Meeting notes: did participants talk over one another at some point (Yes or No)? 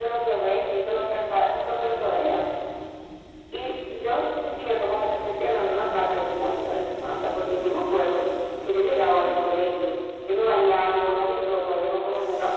No